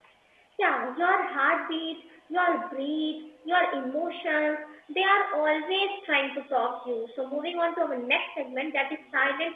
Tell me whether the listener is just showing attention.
Yes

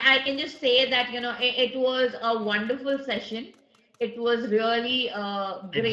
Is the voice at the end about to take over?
No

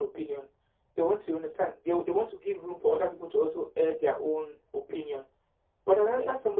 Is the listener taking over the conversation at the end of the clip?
No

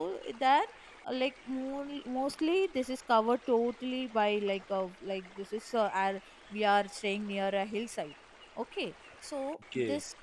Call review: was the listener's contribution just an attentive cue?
Yes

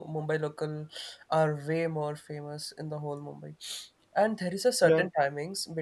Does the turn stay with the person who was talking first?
Yes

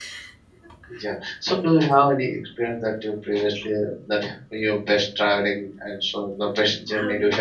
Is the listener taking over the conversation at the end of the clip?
Yes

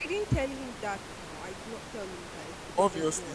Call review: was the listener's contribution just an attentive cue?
No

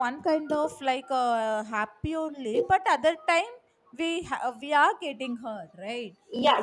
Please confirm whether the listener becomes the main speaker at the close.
Yes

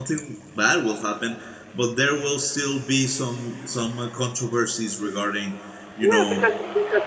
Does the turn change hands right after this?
Yes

